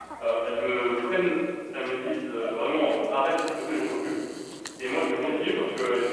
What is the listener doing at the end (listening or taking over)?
listening